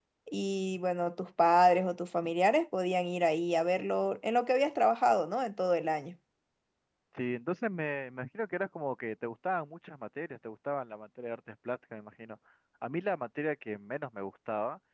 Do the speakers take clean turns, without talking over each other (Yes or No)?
Yes